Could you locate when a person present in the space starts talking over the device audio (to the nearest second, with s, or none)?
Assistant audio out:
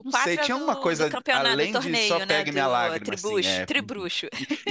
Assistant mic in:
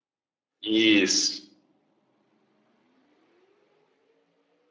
1 s